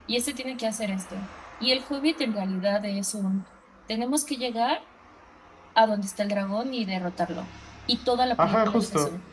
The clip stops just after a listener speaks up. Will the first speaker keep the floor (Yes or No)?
No